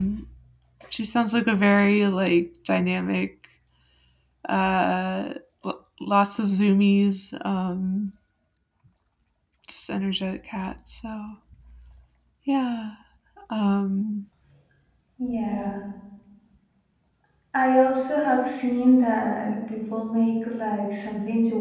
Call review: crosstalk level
none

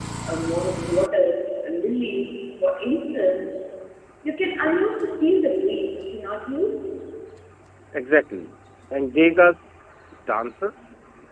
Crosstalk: none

